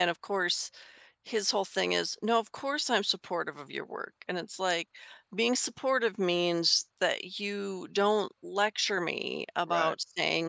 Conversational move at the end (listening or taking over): listening